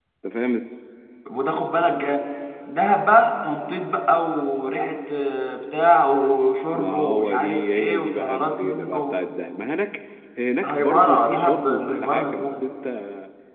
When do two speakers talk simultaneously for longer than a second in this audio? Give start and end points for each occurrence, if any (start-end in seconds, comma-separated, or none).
6.7-9.2, 10.6-12.6